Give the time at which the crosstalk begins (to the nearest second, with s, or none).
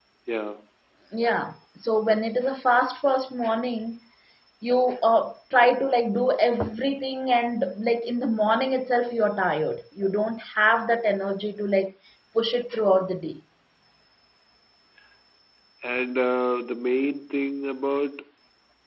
none